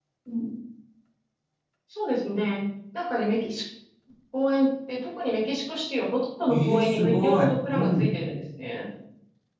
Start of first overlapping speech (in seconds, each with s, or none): 6.5 s